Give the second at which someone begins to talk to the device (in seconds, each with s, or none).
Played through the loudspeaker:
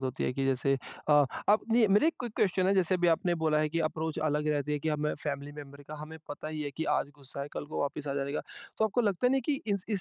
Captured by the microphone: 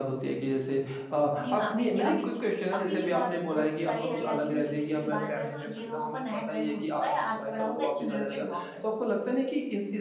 1.4 s